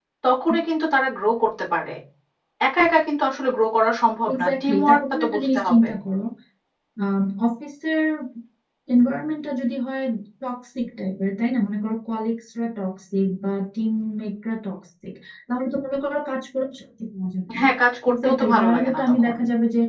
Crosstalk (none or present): present